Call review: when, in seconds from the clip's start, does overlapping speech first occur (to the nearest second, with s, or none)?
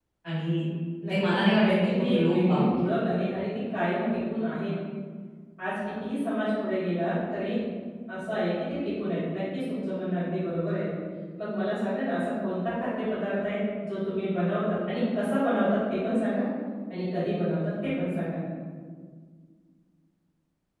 1 s